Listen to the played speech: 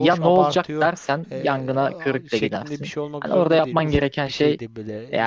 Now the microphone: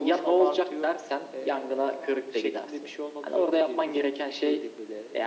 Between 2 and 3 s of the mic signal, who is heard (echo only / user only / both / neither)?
echo only